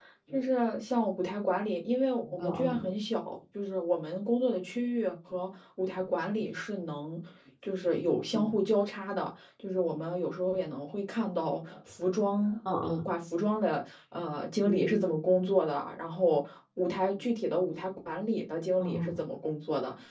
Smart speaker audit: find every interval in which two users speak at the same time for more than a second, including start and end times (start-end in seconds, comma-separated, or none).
none